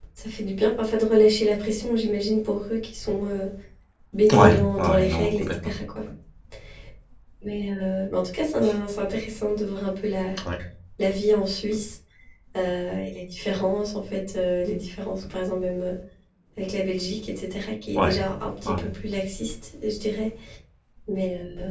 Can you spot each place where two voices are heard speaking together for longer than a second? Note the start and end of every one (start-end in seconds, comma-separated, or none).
4.3-5.7